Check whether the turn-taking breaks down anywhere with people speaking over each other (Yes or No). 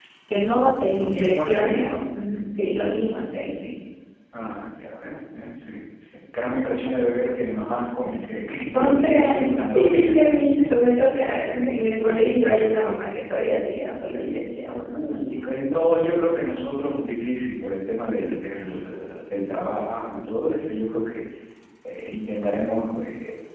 Yes